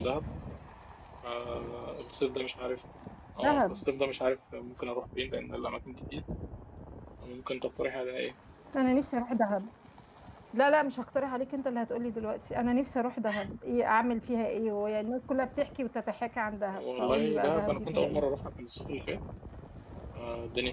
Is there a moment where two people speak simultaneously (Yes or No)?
Yes